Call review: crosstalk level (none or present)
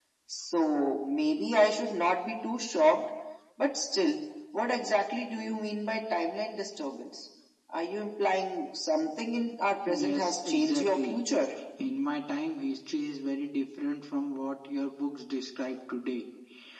present